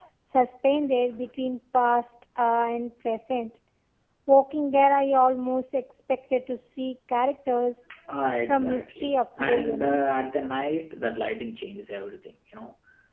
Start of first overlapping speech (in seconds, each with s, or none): 8.5 s